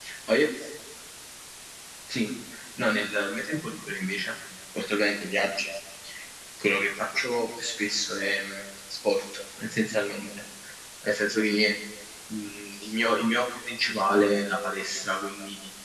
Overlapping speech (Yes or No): No